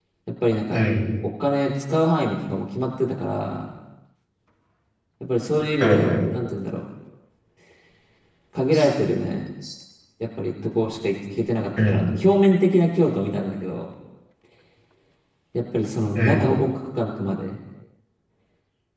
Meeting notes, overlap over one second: none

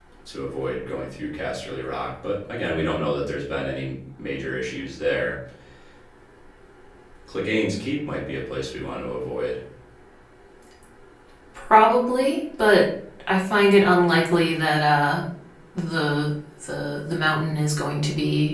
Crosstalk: none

